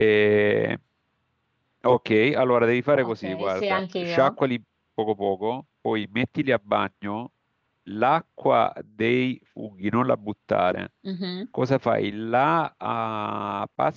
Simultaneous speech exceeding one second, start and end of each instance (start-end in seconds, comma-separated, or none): 3.0-4.3